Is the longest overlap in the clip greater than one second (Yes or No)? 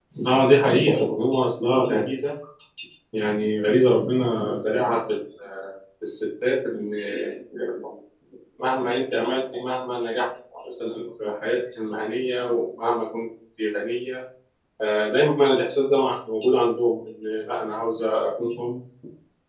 No